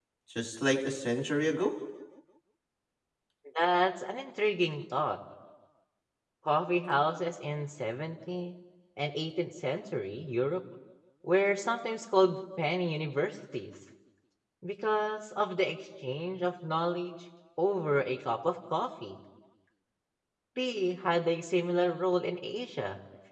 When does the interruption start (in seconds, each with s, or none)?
none